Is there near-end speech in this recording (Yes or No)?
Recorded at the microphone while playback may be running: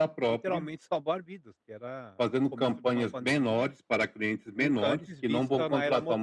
Yes